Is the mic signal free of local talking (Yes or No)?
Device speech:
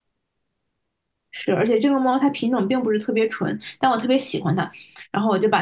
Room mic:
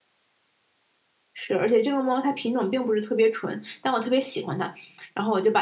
Yes